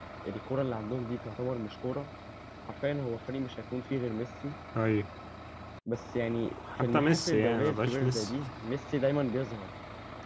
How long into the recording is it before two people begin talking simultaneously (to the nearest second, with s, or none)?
7 s